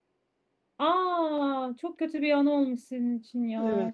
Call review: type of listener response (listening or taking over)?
taking over